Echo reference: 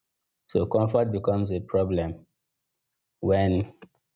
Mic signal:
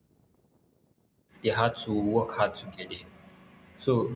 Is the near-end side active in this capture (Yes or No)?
Yes